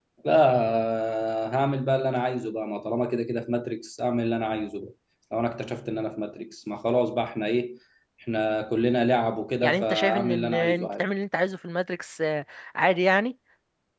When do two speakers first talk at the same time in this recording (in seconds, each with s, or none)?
9.6 s